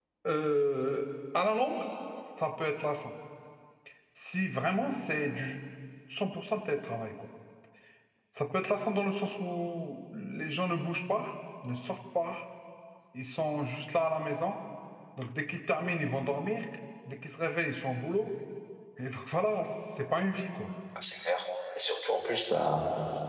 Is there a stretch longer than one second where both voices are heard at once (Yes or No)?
No